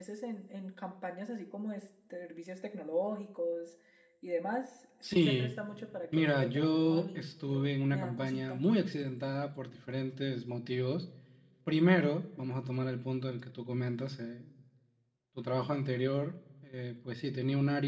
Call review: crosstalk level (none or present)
present